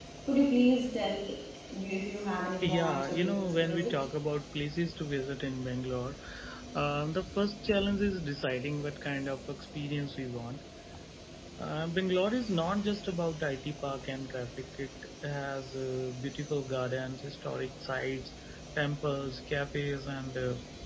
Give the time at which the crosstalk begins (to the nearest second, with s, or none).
3 s